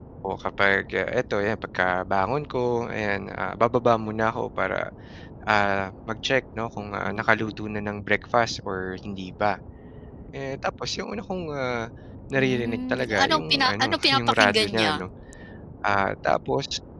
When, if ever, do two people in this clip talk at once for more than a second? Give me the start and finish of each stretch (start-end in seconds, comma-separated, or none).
12.3-15.0